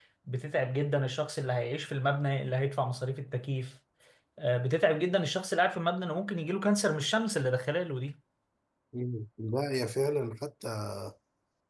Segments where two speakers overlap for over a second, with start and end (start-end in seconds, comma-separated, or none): none